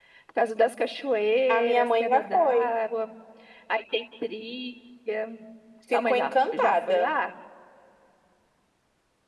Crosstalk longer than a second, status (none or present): present